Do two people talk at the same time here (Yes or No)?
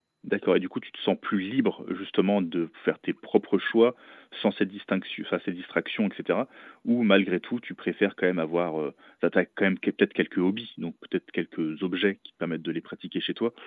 No